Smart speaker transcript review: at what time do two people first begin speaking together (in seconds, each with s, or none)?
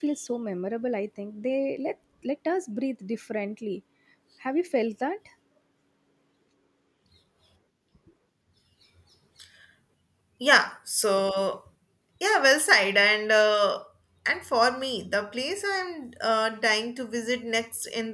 none